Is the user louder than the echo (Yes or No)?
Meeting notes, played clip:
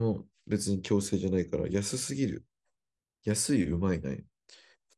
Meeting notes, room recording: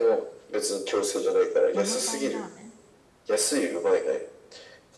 No